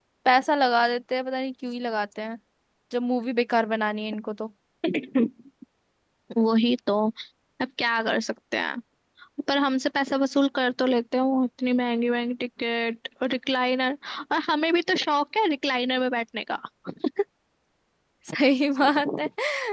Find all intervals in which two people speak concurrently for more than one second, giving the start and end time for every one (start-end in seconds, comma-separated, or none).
none